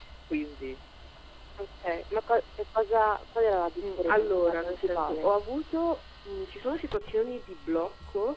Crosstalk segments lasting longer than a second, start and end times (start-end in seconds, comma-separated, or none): 3.8-5.3